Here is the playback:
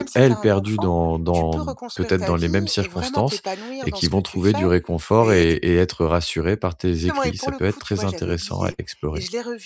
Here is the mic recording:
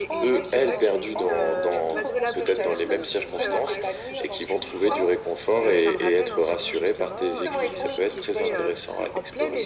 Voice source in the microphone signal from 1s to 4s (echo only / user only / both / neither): both